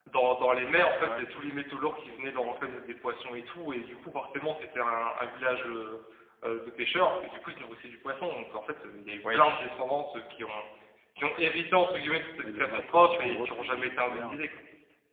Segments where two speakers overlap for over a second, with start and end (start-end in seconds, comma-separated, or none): 12.4-14.4